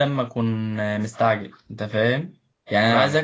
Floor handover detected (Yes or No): No